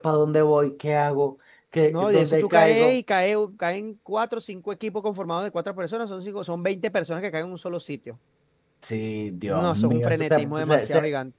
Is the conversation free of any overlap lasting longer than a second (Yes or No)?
No